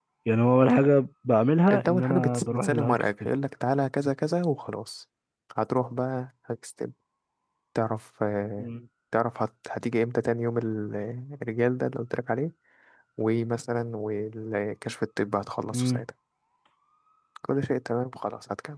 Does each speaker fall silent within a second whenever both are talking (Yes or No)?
No